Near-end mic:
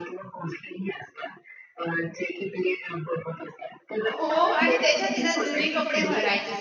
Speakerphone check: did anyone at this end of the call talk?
Yes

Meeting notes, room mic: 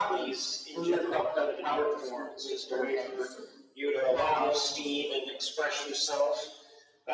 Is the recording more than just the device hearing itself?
No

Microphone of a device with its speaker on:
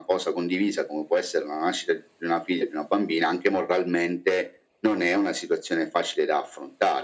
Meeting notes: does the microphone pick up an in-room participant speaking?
No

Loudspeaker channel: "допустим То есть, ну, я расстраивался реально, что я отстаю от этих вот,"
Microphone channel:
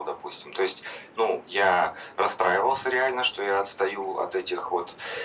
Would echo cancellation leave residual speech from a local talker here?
No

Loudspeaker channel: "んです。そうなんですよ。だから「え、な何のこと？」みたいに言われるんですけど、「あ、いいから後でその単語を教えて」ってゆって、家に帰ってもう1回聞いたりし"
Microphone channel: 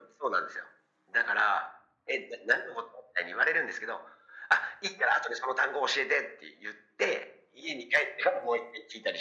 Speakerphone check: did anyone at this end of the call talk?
No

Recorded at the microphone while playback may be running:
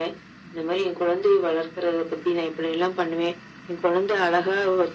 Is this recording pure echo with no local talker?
Yes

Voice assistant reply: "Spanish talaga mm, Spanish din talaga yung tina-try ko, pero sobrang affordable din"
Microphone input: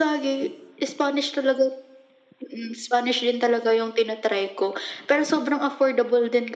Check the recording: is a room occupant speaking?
No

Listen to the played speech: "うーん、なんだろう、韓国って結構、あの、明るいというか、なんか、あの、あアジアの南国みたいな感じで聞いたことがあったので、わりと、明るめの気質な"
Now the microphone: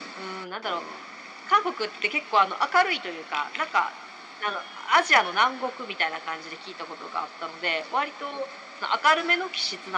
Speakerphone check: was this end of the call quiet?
Yes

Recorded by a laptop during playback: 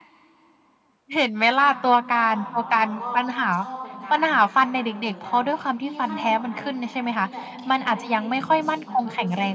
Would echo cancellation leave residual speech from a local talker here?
Yes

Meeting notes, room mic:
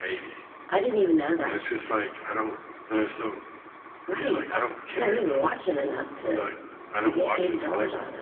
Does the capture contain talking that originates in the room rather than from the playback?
No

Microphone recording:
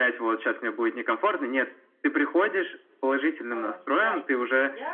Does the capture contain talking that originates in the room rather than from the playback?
Yes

